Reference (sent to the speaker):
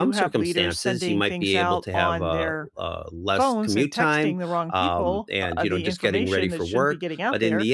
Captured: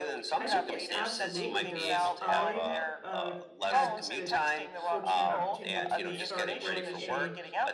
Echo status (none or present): present